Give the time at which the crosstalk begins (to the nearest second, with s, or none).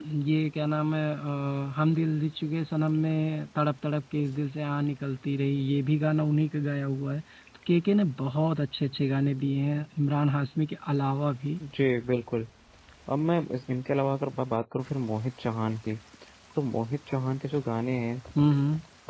none